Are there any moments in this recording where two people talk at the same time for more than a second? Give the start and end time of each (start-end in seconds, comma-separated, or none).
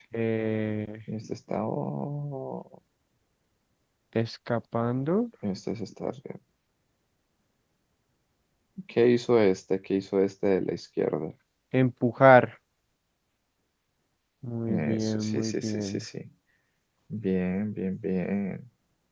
14.7-16.0